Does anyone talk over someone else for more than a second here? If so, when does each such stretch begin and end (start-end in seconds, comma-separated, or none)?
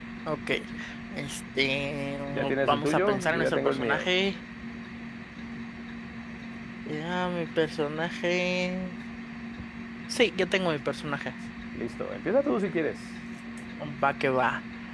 2.3-4.1